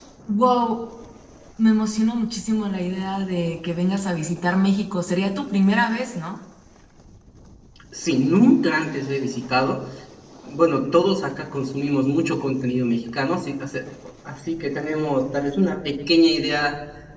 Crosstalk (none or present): none